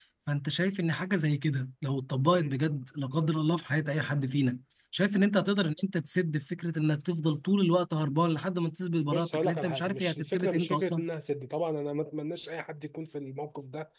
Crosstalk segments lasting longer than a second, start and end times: 9.1-11.0

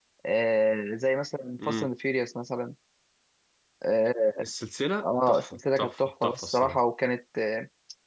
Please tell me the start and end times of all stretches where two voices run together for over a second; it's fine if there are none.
5.0-6.8

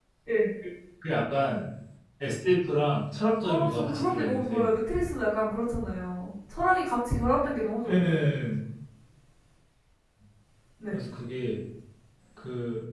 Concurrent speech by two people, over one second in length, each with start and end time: 3.4-4.7

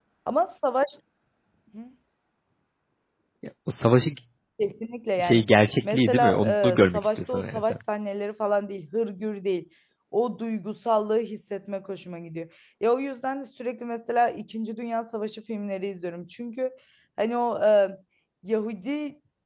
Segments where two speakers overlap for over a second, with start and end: 5.8-7.8

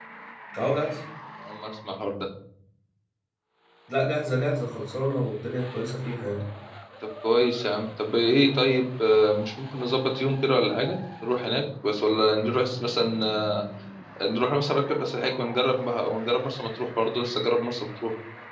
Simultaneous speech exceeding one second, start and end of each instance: none

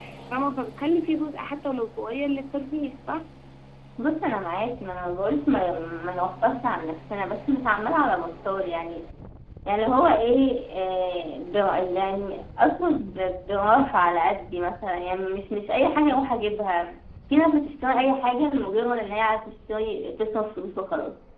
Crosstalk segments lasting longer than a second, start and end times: none

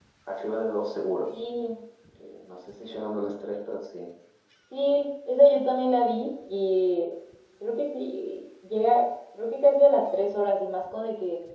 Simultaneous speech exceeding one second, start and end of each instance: none

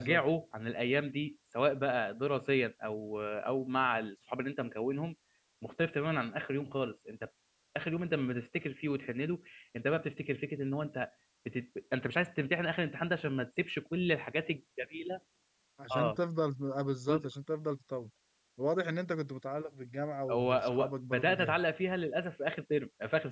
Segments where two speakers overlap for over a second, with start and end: 20.3-21.6

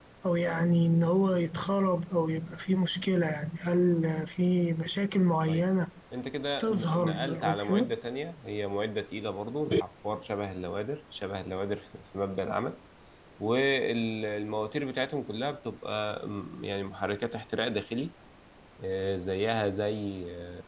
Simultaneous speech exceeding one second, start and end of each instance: 6.6-7.9

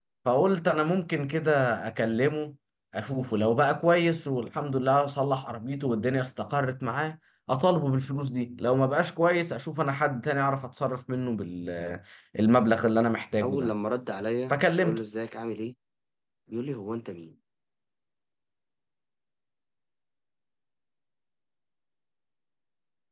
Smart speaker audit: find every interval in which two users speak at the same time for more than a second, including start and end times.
none

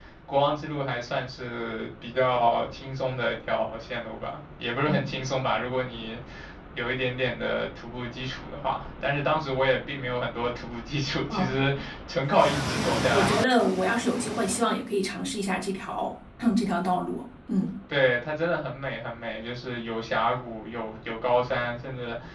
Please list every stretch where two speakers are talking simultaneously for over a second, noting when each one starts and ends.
none

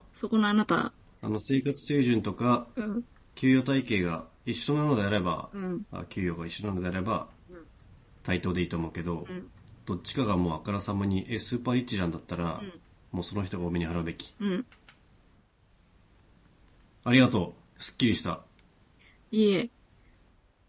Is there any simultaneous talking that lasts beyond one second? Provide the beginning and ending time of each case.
none

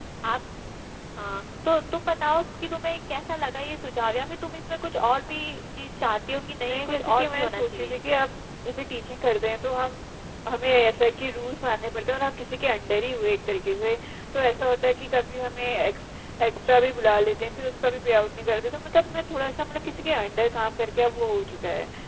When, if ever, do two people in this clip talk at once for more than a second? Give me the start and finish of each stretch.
6.7-8.0

